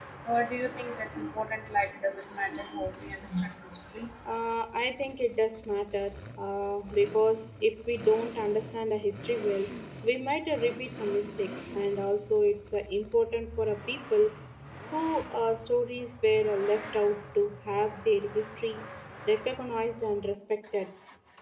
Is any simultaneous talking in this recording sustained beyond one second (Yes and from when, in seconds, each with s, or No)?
No